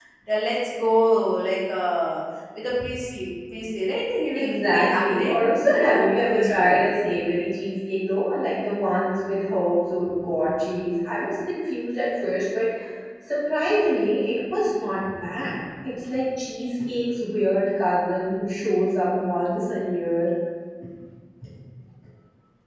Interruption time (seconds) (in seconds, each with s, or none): 4.3 s